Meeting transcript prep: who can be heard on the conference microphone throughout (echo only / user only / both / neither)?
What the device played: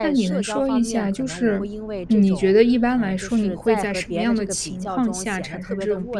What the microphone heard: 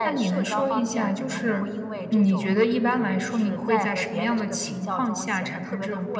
echo only